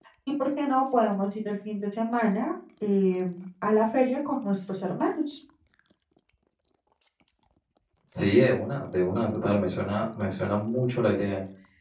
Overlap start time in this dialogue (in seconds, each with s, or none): none